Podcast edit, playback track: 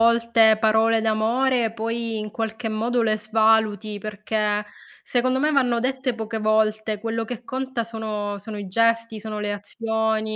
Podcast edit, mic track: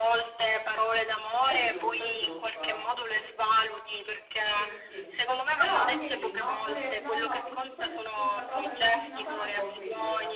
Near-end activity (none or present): present